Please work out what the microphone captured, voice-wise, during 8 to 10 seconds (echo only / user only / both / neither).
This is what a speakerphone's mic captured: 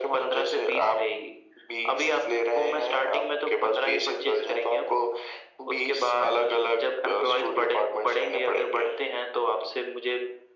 echo only